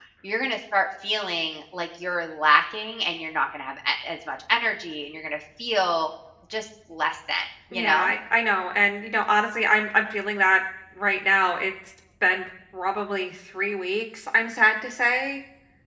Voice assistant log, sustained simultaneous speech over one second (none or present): none